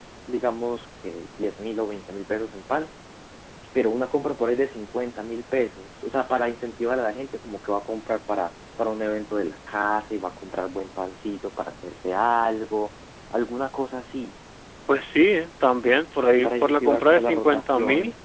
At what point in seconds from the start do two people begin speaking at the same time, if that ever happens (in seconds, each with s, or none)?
16.4 s